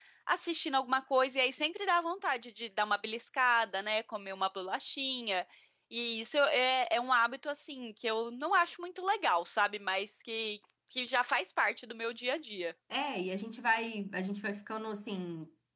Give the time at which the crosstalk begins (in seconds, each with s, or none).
none